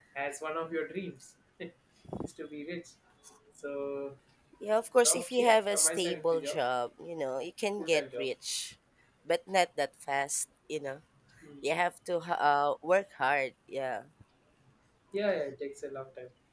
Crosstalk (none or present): present